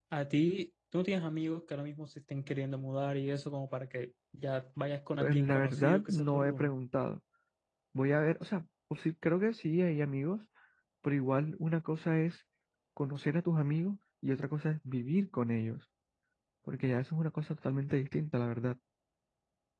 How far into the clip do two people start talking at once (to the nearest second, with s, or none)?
5 s